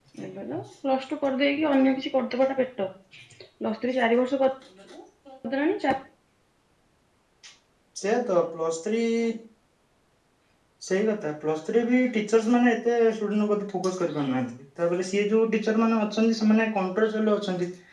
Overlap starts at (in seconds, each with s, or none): none